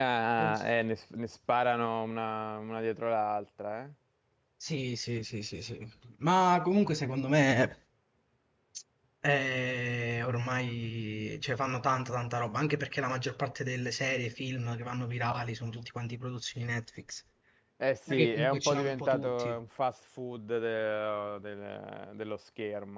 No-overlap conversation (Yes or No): No